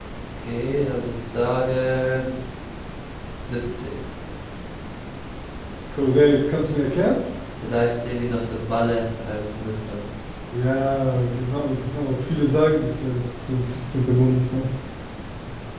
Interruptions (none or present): none